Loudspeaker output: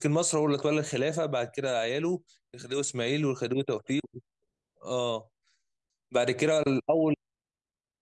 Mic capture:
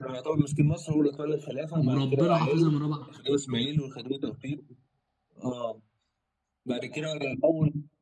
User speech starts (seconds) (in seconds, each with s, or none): 1.8 s